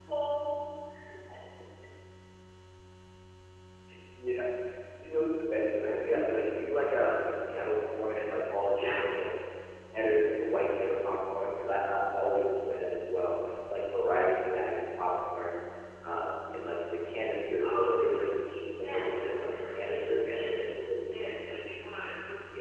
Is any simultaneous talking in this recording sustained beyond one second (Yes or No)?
Yes